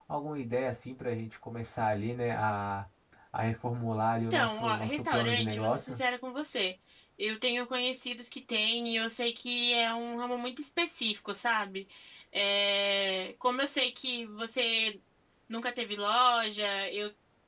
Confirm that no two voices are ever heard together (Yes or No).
No